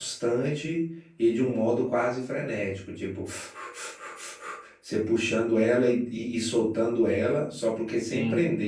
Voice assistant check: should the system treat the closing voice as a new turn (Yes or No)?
No